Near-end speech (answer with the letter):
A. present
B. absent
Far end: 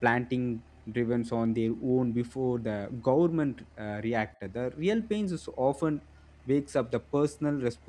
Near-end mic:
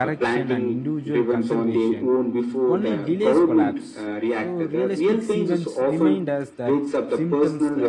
A